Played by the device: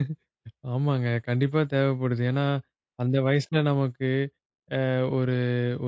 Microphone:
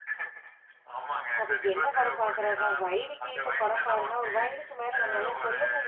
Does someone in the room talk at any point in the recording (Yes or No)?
Yes